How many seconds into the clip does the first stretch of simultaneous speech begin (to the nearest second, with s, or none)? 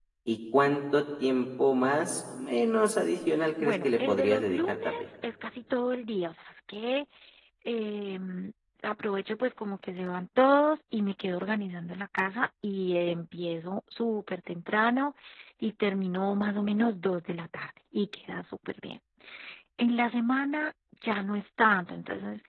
4 s